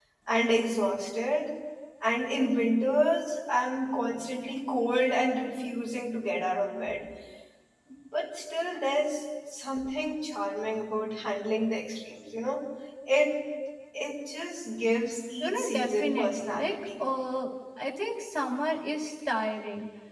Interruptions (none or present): present